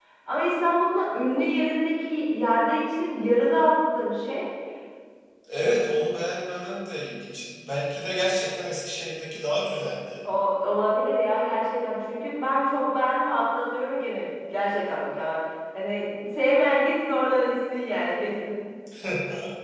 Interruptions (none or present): none